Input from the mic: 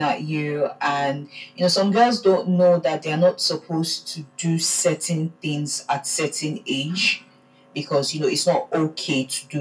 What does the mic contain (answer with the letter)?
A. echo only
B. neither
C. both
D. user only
A